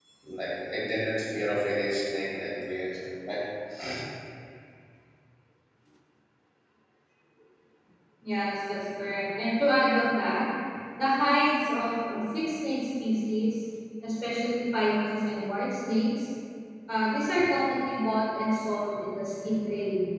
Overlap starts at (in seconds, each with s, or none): none